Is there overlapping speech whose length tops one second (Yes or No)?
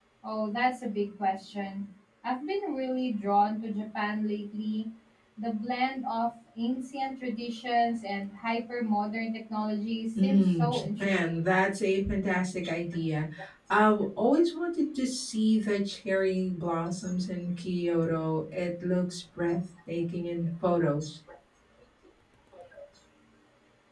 Yes